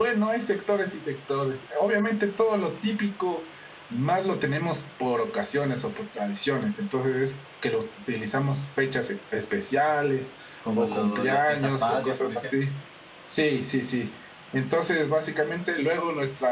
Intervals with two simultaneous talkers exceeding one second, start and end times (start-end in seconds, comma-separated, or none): 10.8-12.6